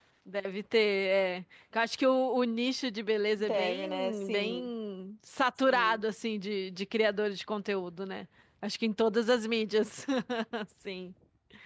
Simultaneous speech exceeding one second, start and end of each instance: 3.4-4.7

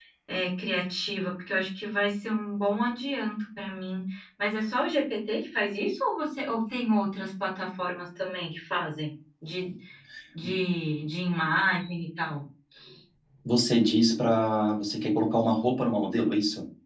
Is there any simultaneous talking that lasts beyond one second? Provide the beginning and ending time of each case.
none

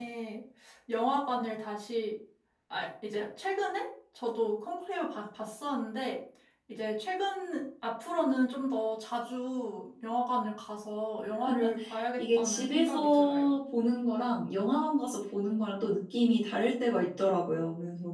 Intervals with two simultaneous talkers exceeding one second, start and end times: 12.2-13.6

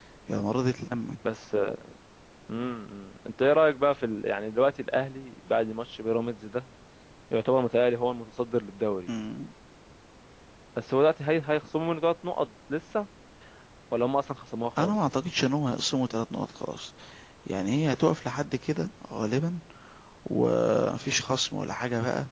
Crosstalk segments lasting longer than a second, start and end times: none

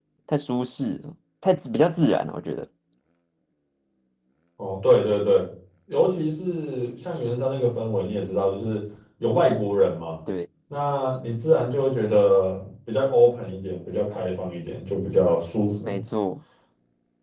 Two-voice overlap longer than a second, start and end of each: none

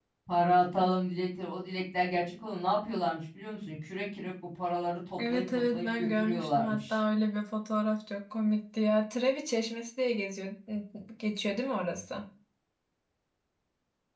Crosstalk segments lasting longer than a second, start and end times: 5.2-7.0

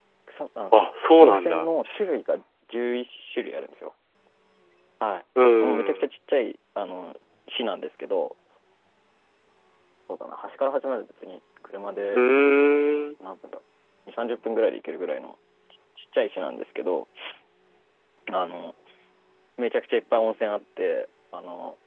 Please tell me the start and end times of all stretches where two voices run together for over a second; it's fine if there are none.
none

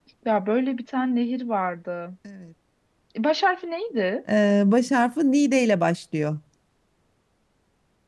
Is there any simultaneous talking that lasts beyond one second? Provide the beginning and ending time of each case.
none

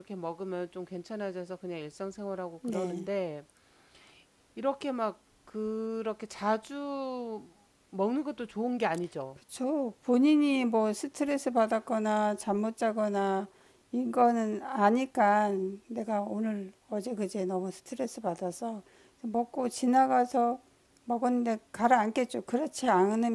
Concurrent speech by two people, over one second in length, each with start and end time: none

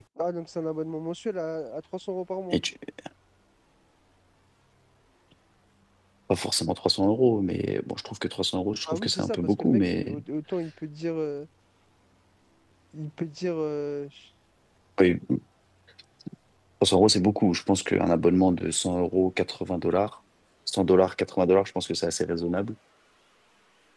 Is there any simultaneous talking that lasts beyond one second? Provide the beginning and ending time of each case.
8.9-10.2

